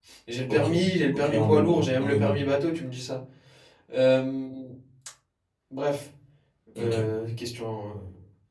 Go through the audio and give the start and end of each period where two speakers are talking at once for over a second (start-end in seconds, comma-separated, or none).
1.1-2.4